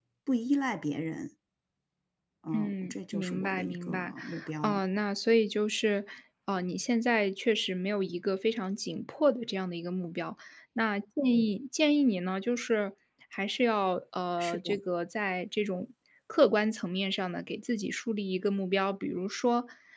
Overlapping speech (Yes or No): Yes